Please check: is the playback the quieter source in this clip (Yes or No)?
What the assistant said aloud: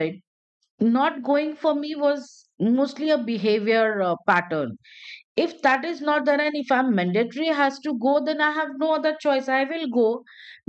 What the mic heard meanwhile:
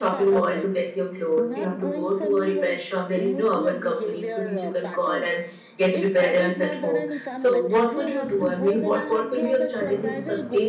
Yes